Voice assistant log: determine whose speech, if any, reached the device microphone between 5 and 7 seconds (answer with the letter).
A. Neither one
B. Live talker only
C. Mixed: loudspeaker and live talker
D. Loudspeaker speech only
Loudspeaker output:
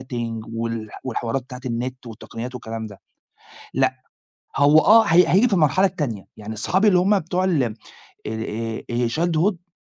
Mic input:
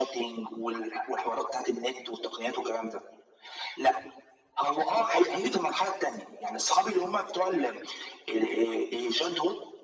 D